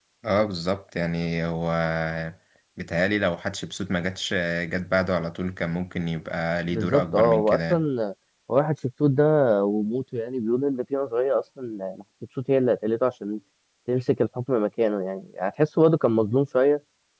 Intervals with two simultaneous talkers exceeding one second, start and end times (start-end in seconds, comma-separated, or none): 6.7-7.8